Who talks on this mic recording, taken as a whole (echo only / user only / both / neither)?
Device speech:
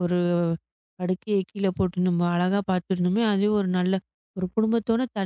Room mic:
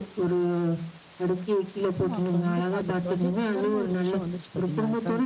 both